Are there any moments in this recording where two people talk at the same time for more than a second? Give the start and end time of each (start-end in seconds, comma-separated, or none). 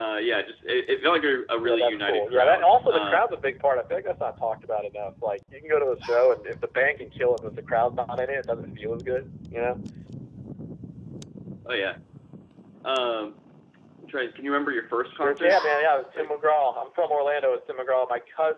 1.6-3.2